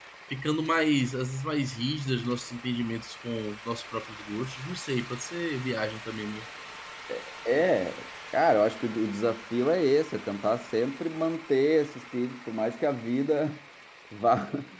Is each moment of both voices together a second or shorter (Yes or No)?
Yes